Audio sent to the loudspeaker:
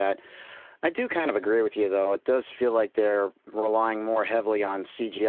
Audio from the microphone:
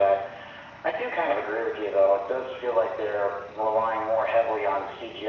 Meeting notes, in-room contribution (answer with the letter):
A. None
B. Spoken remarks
A